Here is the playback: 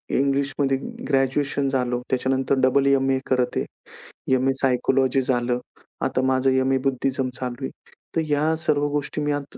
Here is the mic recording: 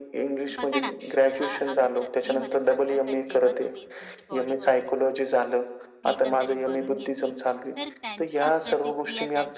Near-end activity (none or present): present